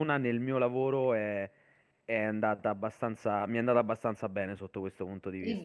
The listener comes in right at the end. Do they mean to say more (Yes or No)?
Yes